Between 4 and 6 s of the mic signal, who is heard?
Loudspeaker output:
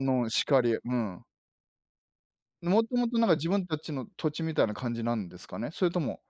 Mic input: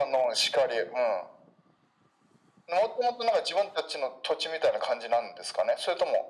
echo only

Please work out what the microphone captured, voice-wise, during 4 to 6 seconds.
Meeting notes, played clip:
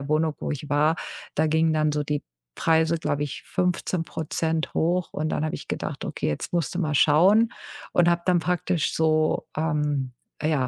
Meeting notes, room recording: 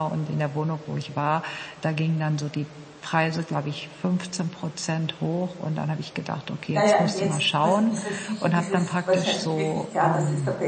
echo only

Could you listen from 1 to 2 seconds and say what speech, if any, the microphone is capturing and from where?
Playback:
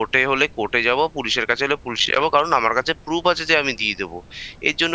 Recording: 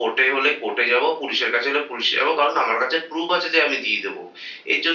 echo only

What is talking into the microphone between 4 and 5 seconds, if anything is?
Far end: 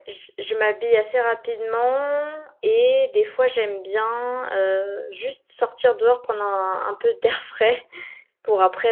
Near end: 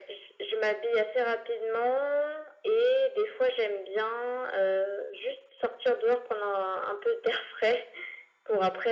echo only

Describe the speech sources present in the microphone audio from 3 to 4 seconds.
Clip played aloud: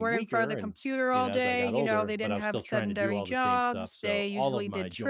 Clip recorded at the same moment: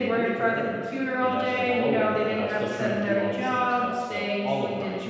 echo only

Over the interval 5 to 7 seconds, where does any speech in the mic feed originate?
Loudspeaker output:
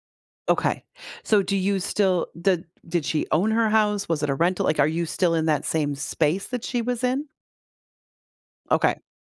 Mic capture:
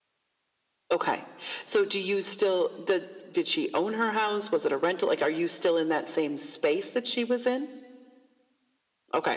echo only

